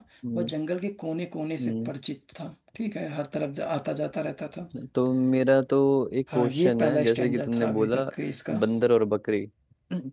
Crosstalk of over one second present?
Yes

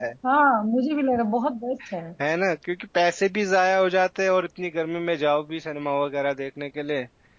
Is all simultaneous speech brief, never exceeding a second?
Yes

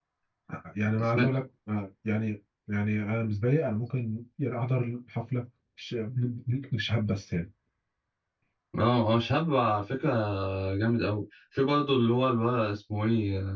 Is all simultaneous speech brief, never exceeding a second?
Yes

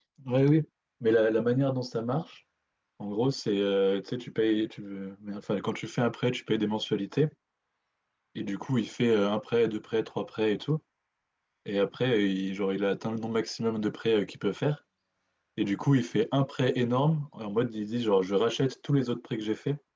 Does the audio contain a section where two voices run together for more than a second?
No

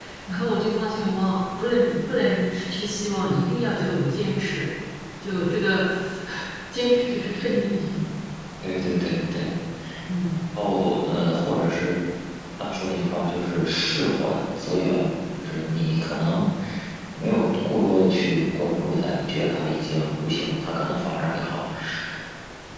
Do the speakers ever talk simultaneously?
No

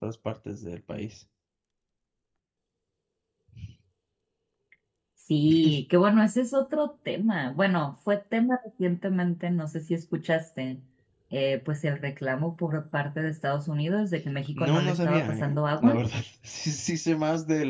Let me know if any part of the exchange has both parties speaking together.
Yes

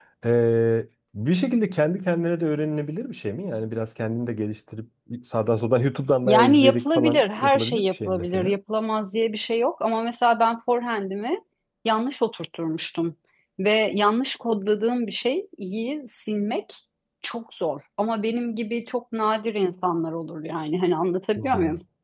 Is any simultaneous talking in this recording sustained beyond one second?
Yes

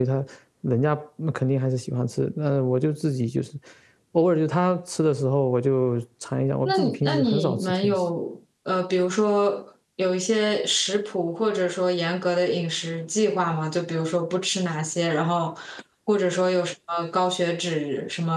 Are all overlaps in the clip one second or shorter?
No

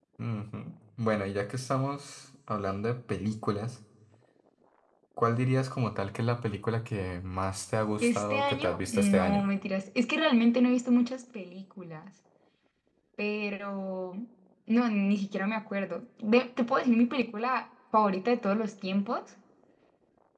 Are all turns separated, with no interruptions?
No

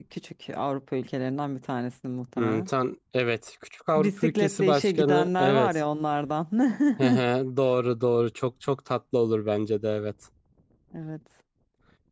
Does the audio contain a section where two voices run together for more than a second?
Yes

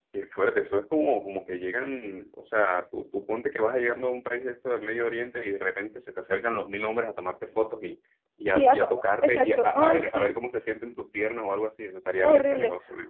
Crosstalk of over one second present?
Yes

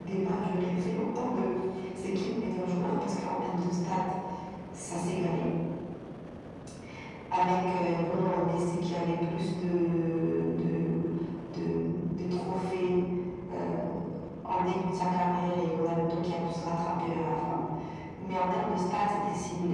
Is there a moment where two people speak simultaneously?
No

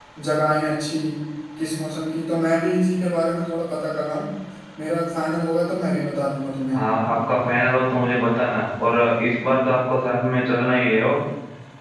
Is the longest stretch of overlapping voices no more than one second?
Yes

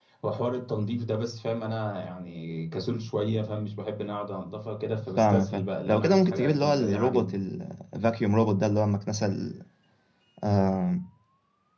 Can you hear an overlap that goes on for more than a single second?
Yes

